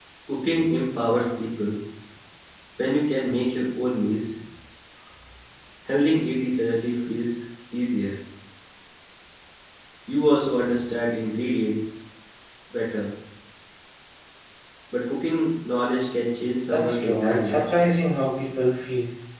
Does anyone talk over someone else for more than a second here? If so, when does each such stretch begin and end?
16.7-17.9

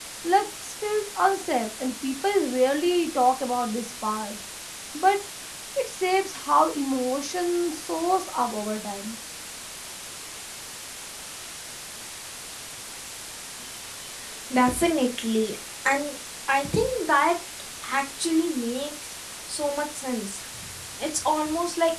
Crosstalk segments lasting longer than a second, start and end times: none

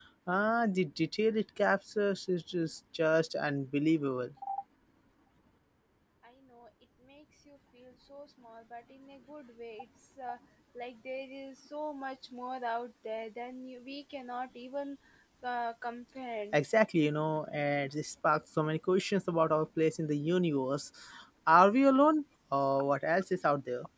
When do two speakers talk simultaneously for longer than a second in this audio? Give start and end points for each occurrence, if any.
none

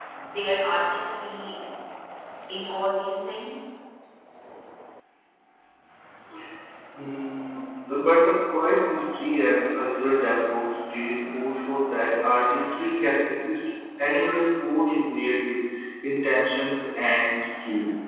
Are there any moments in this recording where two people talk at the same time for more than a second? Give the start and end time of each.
none

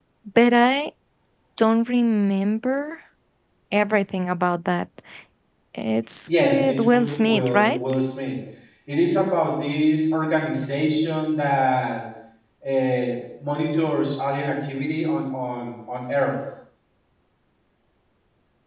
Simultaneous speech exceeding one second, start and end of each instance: 6.4-7.8

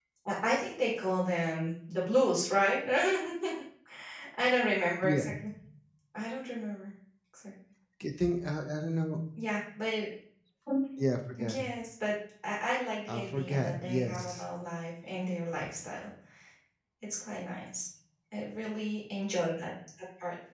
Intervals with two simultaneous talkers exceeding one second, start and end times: 13.1-14.4

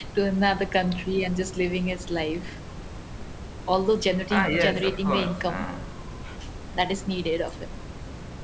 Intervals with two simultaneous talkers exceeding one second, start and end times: 4.3-5.6

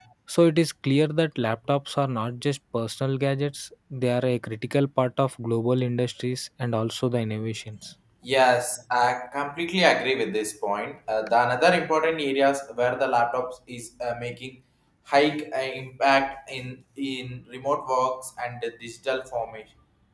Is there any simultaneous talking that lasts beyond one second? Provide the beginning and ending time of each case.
none

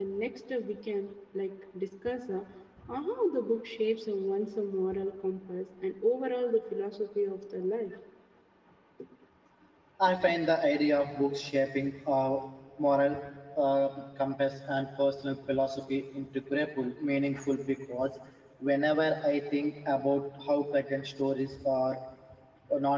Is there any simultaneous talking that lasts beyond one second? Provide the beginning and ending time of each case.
none

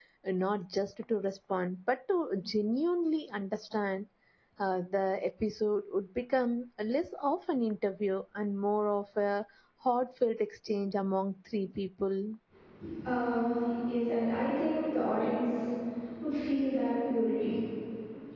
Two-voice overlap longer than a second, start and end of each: none

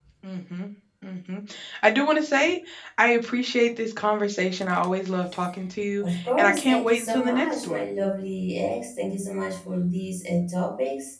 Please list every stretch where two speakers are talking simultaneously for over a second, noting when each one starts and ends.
6.0-7.8

